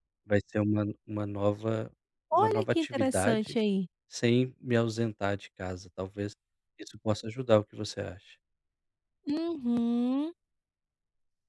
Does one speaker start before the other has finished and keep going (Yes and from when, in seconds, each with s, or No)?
Yes, from 2.4 s